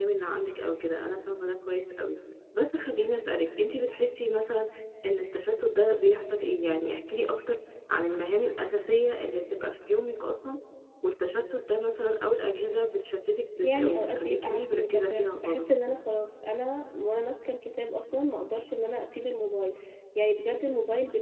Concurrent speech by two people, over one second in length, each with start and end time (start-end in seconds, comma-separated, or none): 13.6-15.6